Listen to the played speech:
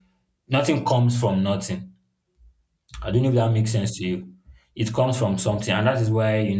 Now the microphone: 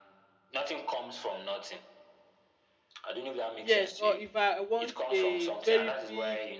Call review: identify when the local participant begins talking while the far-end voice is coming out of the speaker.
4 s

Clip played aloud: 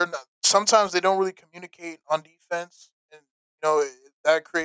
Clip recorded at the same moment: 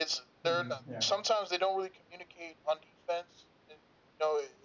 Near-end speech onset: 0 s

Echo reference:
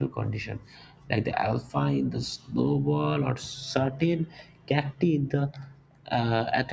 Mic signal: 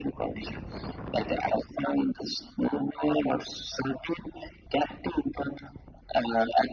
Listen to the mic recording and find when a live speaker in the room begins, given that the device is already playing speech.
none

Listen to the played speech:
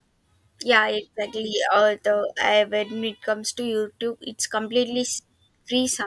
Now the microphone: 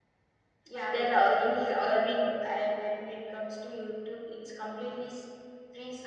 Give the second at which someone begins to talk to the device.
1 s

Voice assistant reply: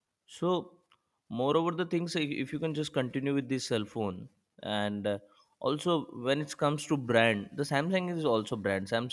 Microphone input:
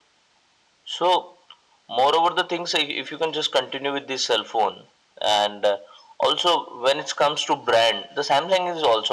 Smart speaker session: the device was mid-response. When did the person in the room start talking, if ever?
none

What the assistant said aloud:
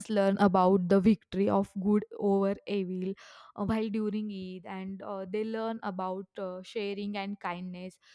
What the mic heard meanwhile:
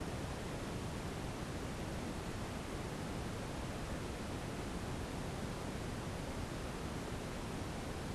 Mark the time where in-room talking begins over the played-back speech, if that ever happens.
none

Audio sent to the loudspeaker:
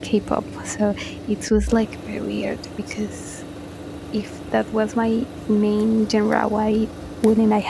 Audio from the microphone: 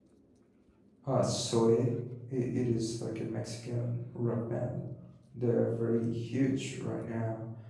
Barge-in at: 1 s

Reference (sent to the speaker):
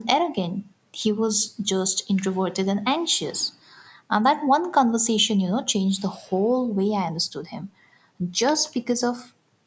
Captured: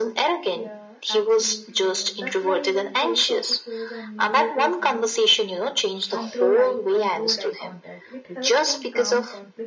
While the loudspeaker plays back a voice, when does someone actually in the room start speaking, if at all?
1 s

